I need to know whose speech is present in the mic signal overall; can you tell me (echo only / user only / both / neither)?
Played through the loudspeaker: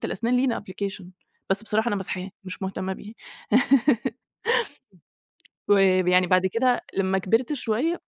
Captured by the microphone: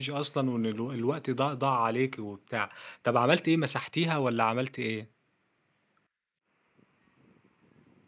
user only